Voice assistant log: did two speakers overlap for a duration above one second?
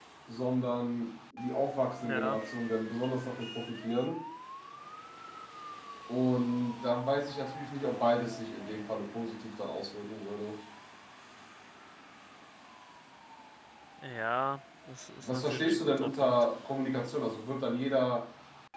Yes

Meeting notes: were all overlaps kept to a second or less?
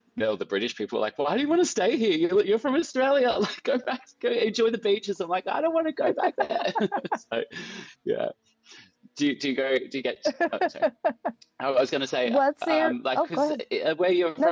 No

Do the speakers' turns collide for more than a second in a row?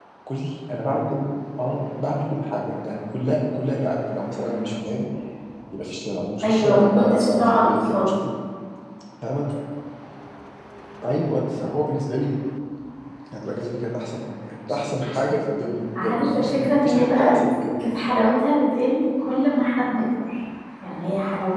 Yes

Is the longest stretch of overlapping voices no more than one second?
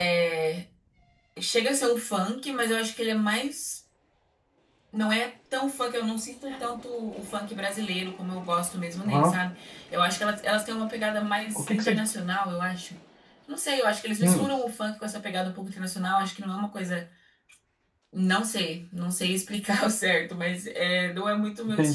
Yes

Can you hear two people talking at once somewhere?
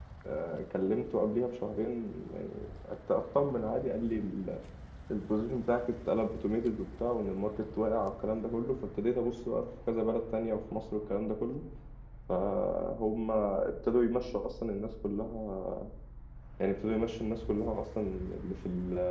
No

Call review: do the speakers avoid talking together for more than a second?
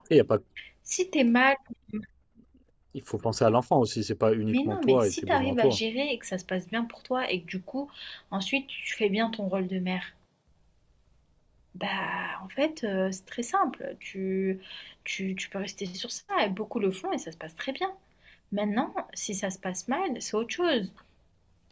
No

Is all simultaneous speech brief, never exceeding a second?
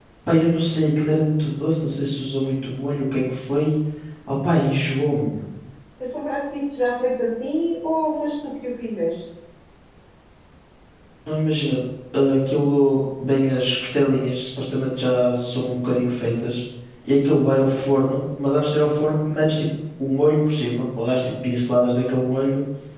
Yes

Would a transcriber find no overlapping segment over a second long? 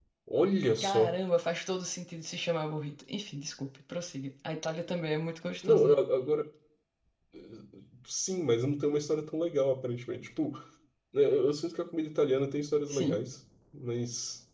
Yes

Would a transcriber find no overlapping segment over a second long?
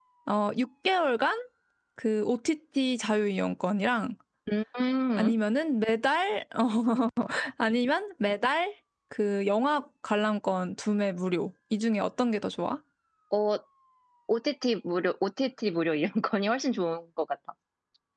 Yes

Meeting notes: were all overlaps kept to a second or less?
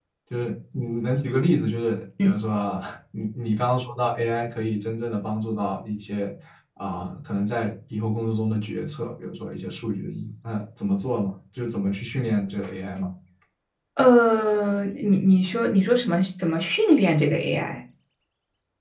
Yes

